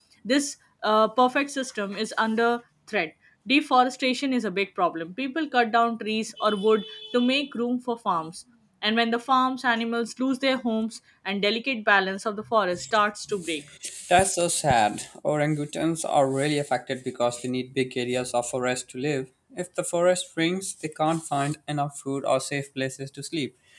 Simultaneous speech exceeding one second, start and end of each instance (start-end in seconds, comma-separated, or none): none